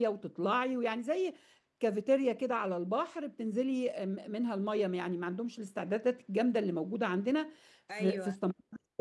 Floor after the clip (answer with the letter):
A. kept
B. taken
A